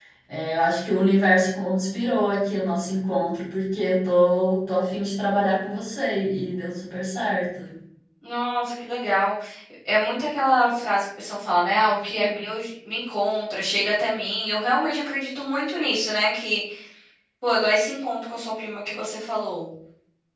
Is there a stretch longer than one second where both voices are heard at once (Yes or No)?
No